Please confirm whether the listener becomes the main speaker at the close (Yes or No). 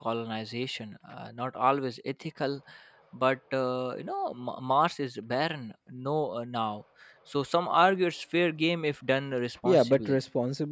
Yes